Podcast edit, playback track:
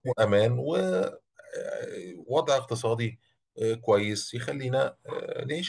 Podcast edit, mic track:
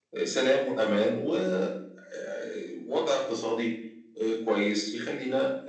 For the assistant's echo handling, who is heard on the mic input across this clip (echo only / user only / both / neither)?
echo only